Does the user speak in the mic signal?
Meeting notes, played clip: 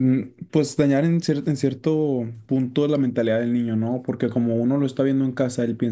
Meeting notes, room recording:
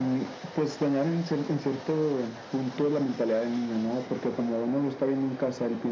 No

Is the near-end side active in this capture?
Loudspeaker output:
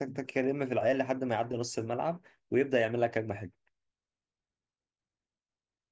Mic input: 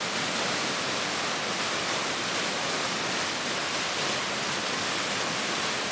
No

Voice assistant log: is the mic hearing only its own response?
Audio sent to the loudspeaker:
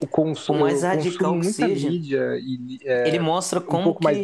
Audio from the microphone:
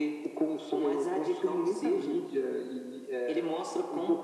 Yes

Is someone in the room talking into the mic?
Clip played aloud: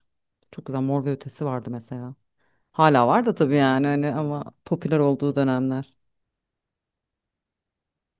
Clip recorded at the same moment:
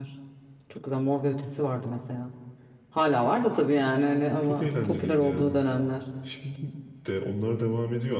Yes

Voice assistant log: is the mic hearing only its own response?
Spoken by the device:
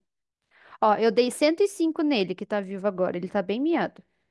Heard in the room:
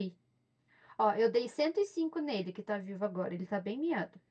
Yes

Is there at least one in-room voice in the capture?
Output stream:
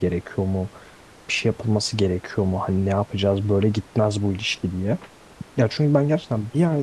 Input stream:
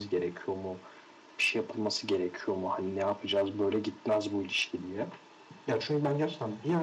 No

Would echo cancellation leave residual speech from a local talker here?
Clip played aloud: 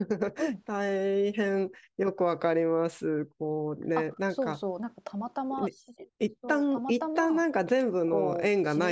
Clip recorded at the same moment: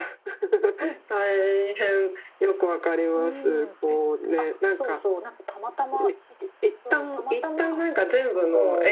Yes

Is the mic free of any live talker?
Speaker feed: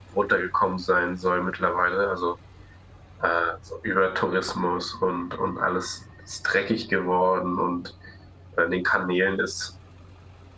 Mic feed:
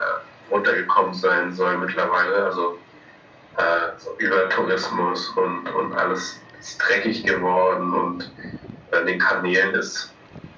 Yes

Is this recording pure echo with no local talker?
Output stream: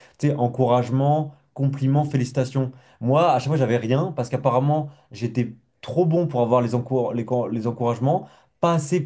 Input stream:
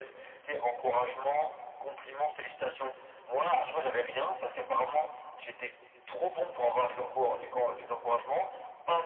Yes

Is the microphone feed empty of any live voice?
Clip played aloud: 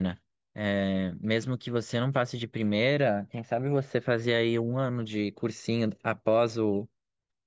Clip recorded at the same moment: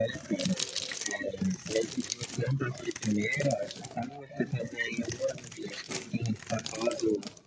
Yes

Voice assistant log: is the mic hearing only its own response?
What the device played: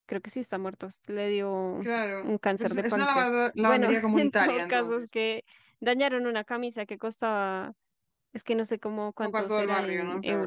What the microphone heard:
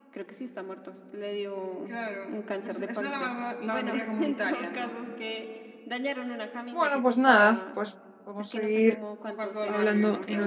No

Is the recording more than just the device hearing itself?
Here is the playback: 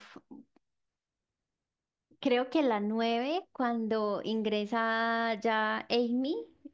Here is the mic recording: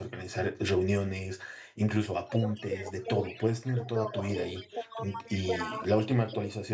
Yes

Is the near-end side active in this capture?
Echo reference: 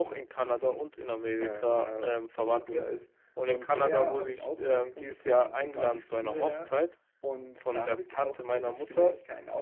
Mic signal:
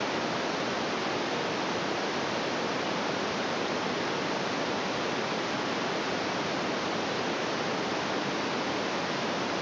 No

